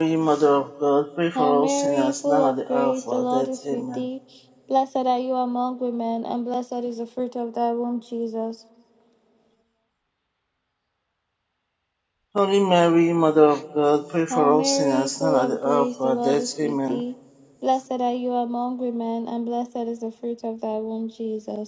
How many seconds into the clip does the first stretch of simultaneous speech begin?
1 s

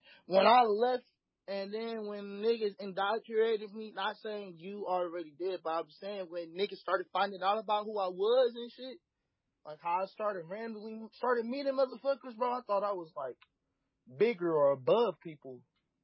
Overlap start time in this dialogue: none

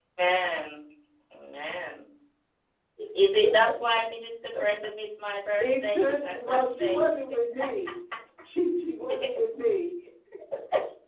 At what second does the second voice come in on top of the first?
6 s

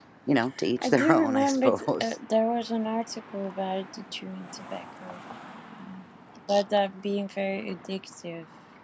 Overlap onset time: 1 s

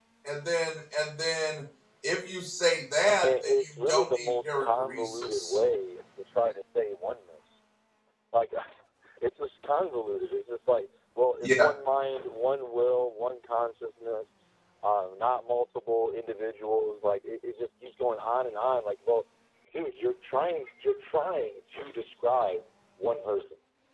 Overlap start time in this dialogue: 3 s

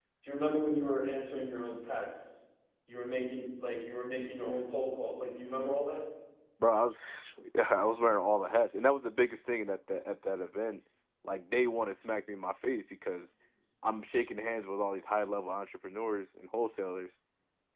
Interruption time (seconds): none

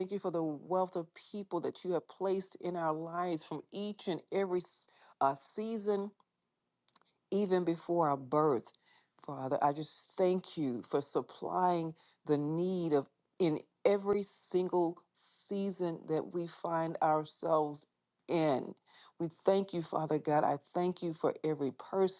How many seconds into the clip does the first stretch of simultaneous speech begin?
none

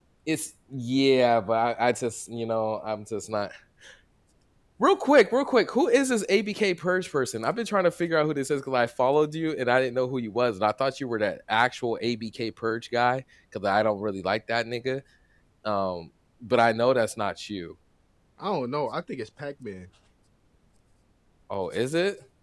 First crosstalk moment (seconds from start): none

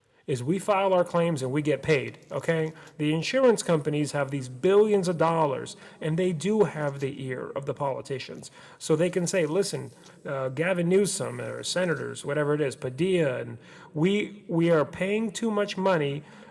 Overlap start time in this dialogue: none

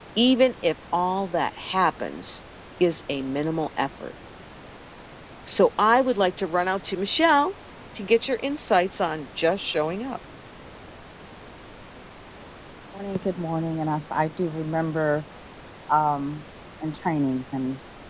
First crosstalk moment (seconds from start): none

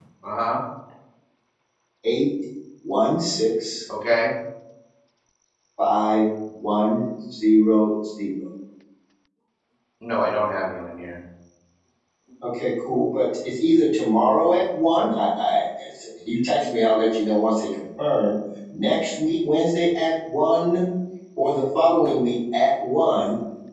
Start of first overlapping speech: none

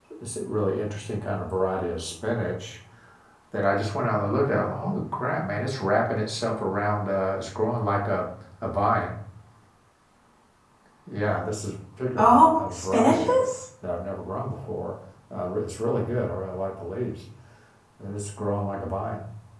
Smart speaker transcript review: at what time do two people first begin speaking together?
12 s

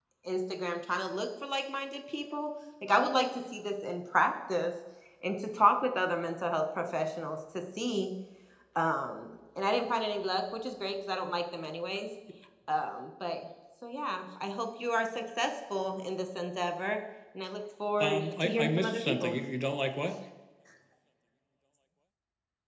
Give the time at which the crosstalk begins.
18 s

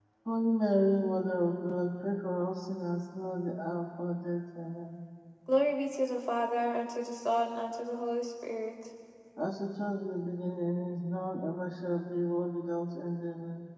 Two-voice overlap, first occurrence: none

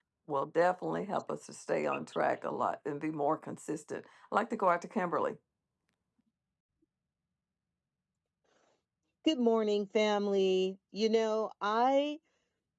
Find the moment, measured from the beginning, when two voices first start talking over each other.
none

